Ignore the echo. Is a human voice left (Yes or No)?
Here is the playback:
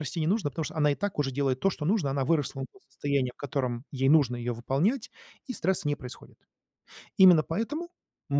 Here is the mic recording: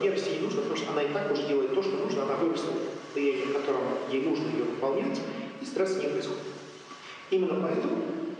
No